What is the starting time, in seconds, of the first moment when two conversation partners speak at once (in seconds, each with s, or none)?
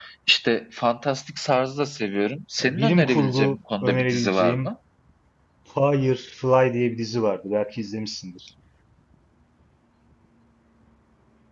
2.6 s